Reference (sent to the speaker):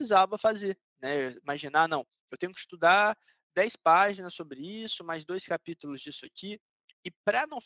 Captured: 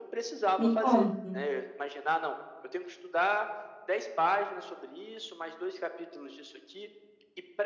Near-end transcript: Me conta.

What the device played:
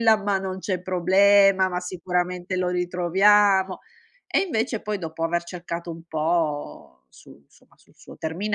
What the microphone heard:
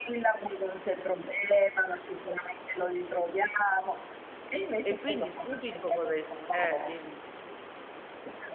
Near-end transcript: E quindi subito cosa hai eh, dimmi.

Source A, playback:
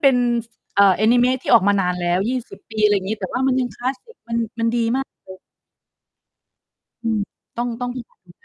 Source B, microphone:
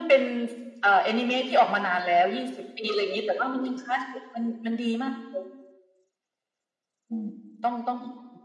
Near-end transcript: none

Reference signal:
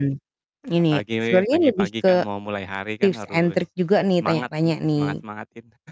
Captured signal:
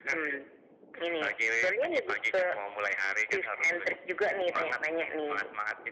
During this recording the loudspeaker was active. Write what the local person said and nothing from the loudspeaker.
none

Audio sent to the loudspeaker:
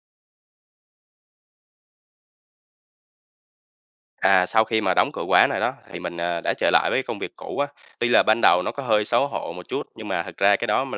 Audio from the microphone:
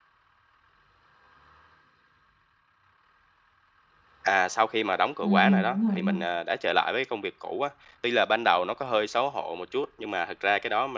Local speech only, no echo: Ừm, ừm, đúng rồi, đúng rồi.

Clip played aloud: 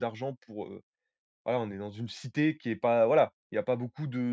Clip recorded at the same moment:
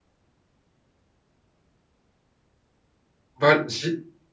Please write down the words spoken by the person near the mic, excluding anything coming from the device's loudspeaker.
Ben j'i

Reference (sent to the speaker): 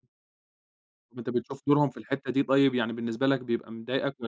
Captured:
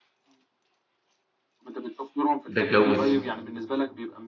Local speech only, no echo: ده اتجوّز

